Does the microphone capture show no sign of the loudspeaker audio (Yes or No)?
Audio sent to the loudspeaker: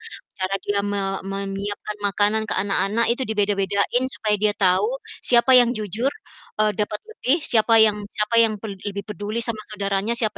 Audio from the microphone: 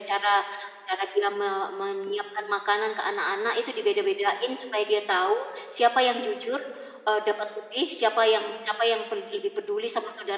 No